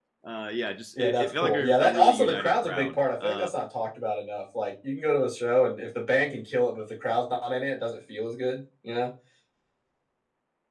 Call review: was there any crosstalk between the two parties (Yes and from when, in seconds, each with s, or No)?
Yes, from 1.0 s